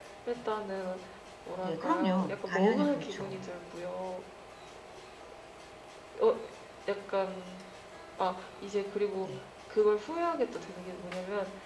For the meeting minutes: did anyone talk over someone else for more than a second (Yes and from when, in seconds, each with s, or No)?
Yes, from 1.6 s